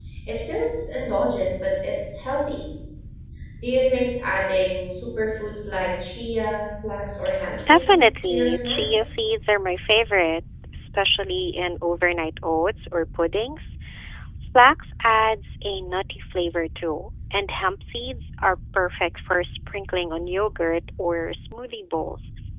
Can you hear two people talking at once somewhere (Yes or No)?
Yes